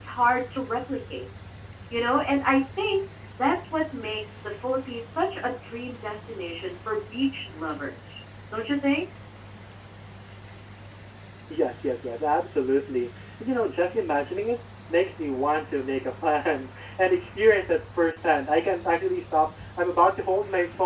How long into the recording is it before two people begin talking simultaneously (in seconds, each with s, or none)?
none